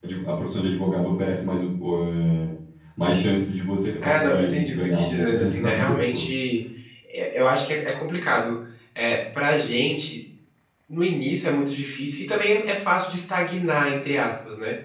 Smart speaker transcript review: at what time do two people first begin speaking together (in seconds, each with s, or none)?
4.0 s